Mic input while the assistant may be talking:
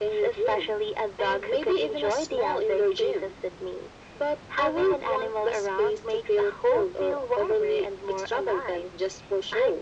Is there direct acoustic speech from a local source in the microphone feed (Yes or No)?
No